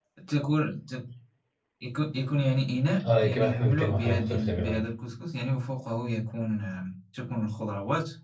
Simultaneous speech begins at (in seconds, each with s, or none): 3.0 s